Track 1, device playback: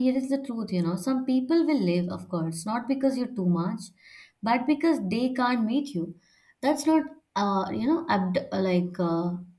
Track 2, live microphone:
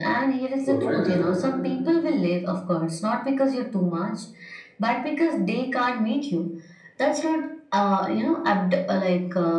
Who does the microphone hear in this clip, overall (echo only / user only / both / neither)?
both